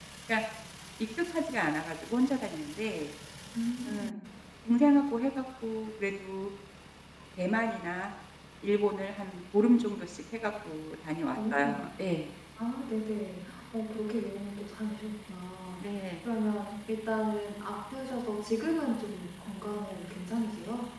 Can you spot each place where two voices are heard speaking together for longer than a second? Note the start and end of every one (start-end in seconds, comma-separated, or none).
none